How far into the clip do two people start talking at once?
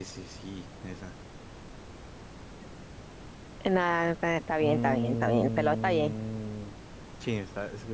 5 s

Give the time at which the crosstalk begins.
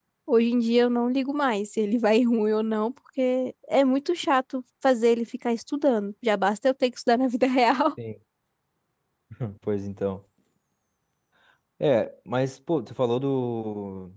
none

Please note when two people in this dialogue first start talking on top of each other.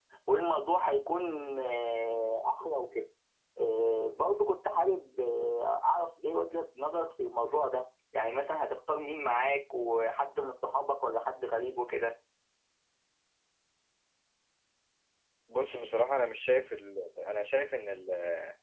none

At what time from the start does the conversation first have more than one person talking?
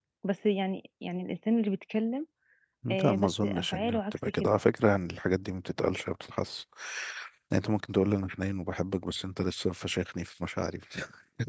3 s

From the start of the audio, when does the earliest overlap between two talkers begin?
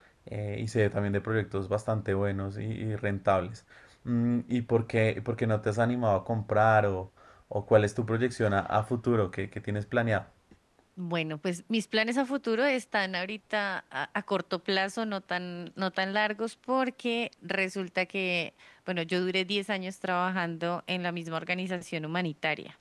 none

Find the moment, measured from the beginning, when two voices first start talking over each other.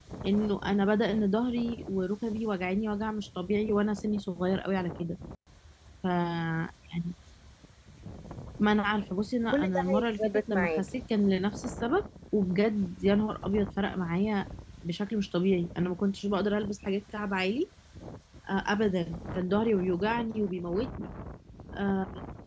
10 s

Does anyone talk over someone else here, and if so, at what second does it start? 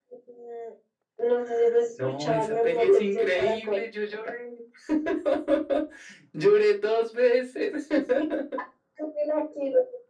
2 s

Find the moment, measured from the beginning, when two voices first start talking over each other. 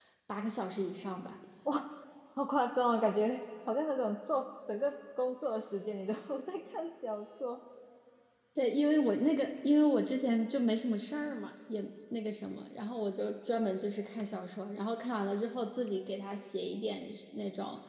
none

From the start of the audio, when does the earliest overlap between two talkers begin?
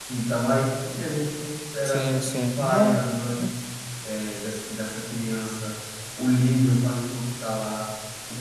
2 s

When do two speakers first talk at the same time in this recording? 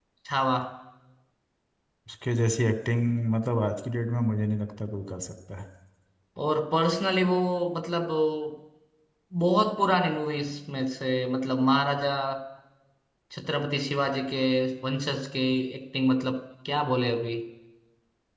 none

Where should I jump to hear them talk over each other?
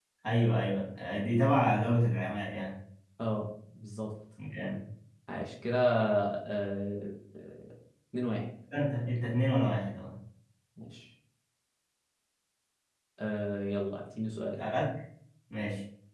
none

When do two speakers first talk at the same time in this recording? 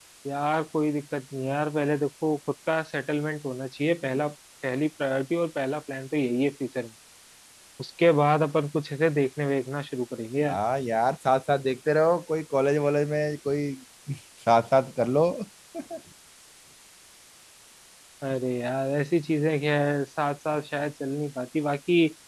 none

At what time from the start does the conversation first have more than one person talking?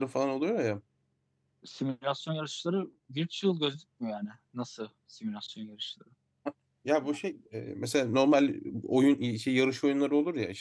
none

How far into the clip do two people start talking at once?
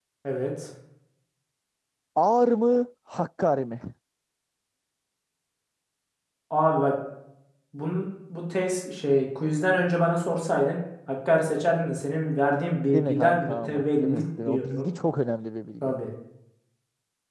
13 s

